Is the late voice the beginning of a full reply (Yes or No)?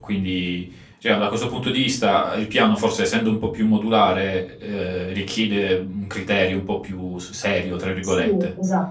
Yes